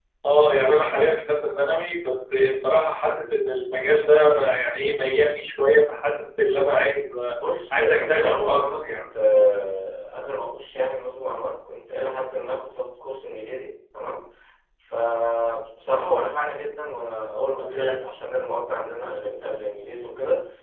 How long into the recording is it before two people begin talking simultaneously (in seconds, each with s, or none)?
7.7 s